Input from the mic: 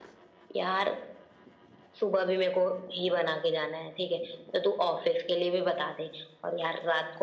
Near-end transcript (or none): none